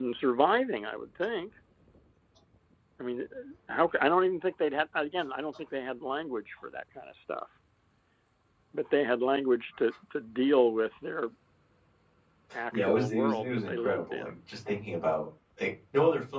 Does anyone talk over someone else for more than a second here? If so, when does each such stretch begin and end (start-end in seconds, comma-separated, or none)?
12.7-14.3